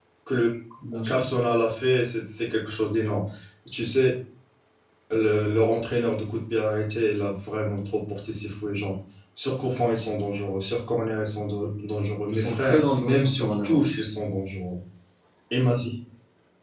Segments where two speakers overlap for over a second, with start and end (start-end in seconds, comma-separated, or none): 12.3-13.9